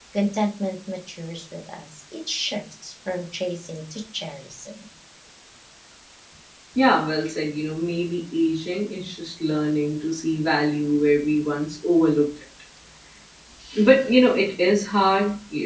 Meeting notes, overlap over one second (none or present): none